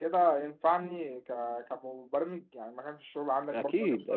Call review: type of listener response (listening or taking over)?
taking over